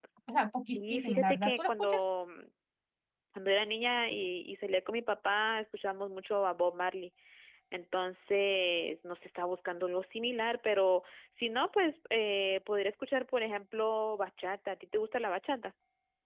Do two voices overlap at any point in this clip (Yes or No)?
Yes